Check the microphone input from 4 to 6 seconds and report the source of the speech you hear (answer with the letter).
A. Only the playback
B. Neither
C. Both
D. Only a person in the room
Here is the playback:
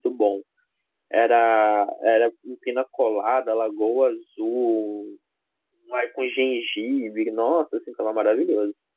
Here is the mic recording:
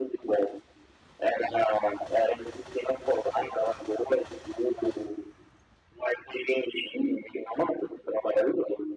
A